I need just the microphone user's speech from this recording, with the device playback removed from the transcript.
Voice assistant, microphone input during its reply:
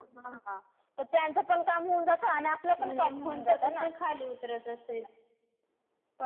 म्हणजे कोणता तसं खाली उतरत असेल.

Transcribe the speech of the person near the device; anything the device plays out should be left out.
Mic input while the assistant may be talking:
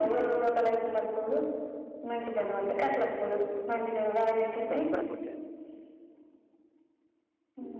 మస్త్ అందంగున్.

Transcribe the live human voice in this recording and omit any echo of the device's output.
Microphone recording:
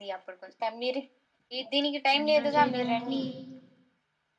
ఇంటర్ చేయడానికి

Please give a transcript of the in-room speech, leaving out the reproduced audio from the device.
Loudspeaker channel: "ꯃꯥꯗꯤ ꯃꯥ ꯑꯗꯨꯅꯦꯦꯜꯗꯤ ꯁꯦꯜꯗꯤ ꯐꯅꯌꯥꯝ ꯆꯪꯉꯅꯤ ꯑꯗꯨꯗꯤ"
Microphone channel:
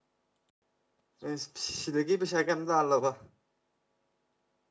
ꯑꯦ ꯁꯤꯗꯒꯤ ꯄꯩꯁꯥ ꯀꯩꯝ ꯇꯥꯜꯂꯕ

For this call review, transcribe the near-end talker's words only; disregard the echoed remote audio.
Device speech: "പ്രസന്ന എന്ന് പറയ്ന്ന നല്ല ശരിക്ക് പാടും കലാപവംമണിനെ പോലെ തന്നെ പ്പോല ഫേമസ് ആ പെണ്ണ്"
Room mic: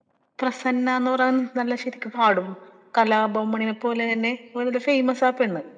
none

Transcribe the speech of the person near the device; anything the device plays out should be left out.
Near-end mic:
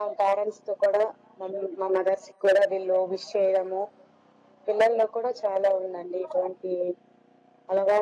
none

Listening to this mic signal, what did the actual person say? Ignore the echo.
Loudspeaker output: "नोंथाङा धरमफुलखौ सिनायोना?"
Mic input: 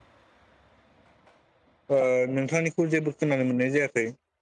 ओ नोंथांनिखौ जेबो खोनानो मोननाय जायाखै।

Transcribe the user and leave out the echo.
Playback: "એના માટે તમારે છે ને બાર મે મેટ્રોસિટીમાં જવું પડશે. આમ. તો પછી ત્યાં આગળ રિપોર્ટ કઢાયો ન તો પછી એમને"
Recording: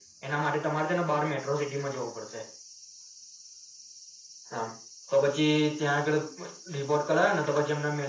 none

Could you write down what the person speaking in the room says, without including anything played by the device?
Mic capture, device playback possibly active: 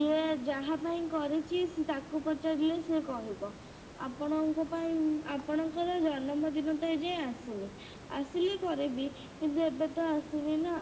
none

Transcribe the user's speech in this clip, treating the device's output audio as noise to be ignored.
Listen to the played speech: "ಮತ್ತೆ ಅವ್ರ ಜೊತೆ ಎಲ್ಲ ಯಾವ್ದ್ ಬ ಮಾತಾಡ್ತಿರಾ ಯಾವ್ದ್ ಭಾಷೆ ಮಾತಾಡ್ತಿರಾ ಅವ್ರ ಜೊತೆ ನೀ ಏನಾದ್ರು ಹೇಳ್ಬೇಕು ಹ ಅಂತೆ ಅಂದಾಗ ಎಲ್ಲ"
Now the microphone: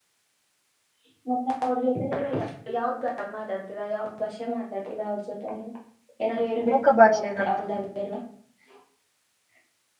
ಮುಖ ಭಾಷೆ ನಮ್ದು

